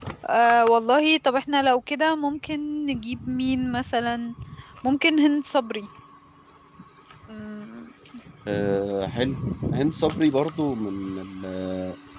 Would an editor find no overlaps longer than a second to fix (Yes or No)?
Yes